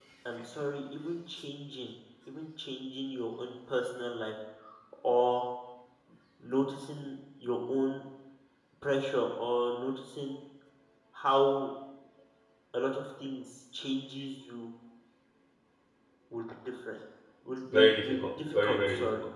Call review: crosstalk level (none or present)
present